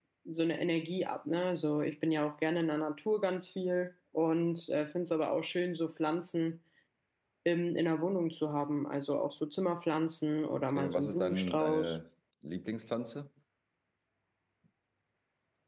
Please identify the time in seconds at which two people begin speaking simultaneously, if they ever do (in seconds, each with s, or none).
10.7 s